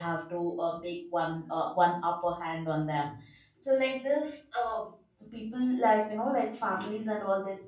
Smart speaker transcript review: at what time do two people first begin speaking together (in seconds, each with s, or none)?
none